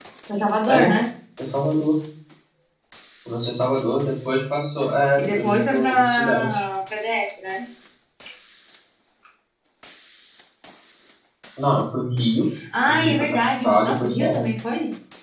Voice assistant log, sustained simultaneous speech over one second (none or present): present